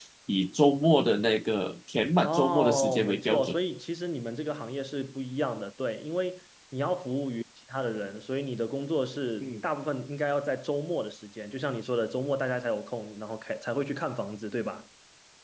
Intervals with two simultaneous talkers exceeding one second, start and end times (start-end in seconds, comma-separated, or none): 2.2-3.5